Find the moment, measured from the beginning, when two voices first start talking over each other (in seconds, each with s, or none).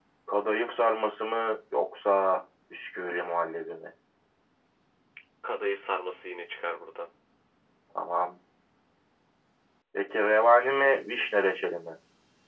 none